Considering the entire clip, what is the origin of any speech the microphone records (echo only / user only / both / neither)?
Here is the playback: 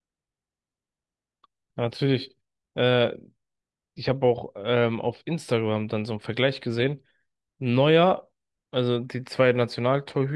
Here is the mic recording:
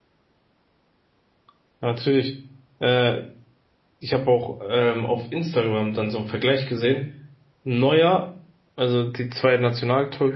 echo only